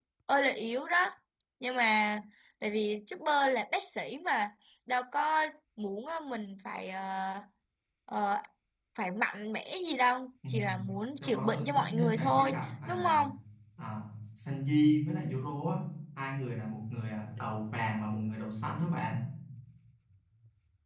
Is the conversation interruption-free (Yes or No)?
No